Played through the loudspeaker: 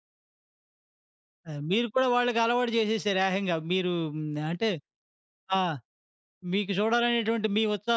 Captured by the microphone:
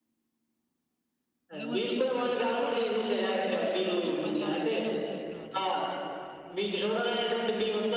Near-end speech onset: 1.5 s

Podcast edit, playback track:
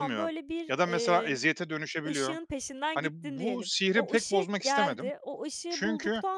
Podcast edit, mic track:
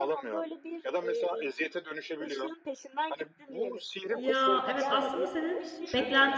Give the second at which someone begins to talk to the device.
4.1 s

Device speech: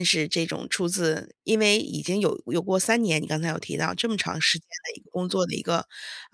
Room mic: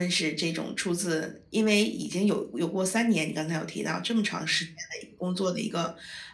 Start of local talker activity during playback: none

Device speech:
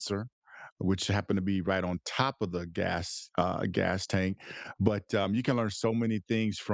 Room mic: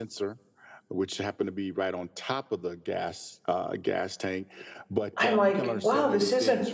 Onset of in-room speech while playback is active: 5.2 s

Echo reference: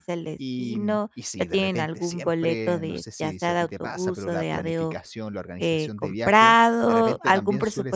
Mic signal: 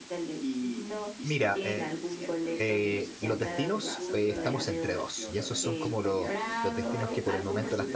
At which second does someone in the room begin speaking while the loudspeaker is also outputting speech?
1.2 s

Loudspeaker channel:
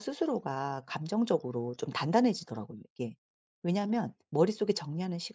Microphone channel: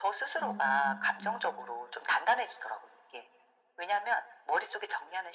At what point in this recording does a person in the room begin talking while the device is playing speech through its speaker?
0.4 s

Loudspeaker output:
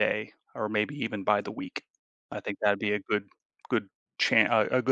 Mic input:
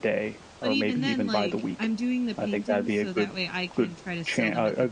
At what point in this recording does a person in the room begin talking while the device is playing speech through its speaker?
0.6 s

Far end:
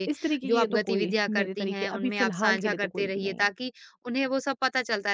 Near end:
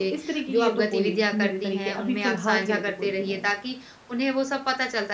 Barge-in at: none

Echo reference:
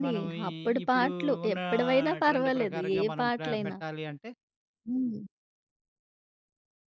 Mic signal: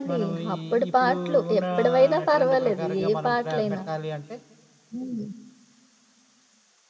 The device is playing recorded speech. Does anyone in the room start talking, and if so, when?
none

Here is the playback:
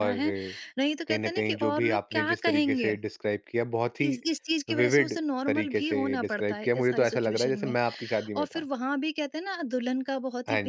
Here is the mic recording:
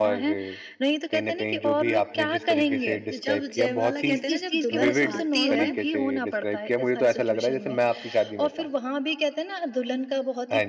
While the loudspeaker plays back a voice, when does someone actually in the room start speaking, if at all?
3.1 s

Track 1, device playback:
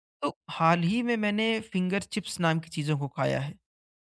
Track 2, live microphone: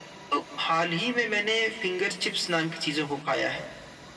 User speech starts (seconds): none

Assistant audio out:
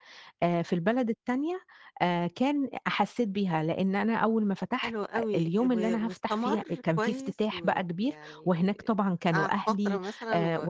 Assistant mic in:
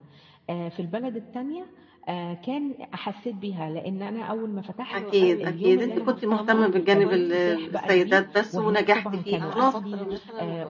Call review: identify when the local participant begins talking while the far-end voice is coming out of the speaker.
4.9 s

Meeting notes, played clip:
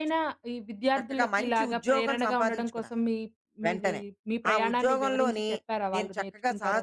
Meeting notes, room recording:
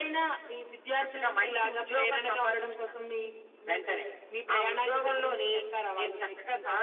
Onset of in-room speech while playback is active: none

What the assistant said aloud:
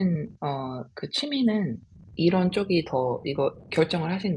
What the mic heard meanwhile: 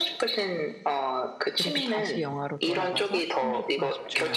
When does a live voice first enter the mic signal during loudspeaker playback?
1.5 s

